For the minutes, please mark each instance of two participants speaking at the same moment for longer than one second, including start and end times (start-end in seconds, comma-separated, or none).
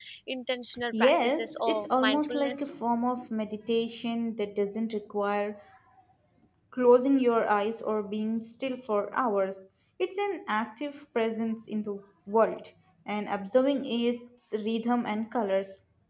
0.9-2.7